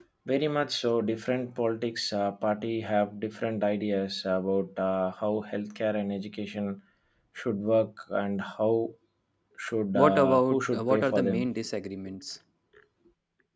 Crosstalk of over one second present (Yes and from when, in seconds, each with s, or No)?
Yes, from 9.9 s